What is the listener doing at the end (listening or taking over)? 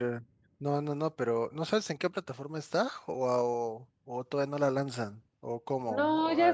taking over